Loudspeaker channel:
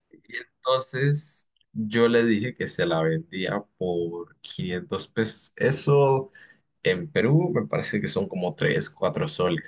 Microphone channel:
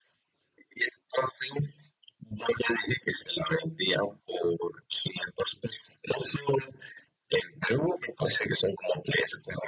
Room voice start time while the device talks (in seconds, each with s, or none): none